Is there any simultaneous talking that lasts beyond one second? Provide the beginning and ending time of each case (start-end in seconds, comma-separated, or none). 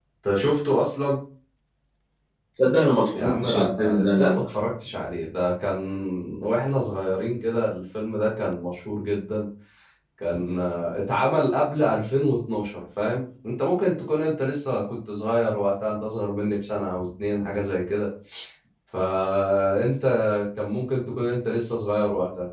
3.1-4.3